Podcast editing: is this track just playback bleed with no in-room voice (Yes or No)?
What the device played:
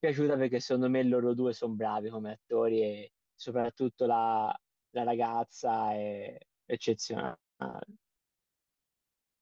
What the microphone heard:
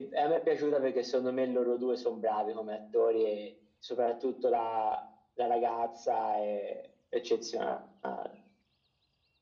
Yes